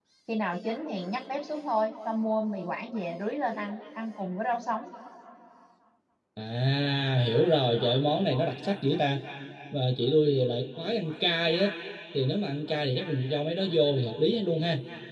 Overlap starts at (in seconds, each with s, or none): none